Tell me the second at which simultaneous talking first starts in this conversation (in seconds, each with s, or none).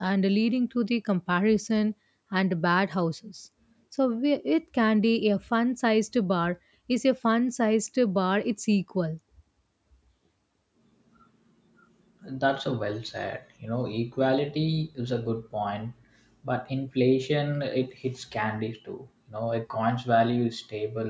none